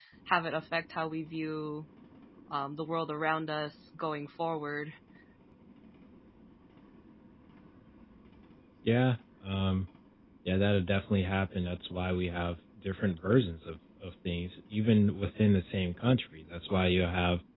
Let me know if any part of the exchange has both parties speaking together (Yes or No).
No